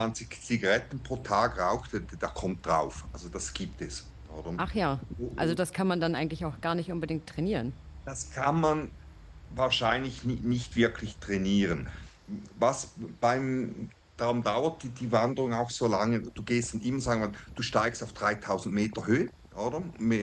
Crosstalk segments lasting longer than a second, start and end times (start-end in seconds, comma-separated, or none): none